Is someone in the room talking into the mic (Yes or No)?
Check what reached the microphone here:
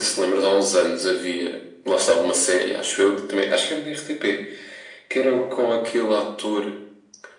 No